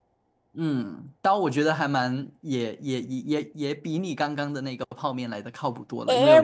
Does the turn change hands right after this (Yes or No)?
Yes